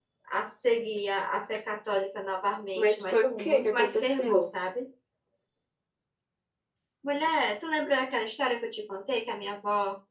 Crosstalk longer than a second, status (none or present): present